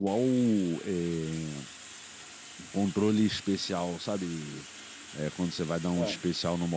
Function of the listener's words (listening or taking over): listening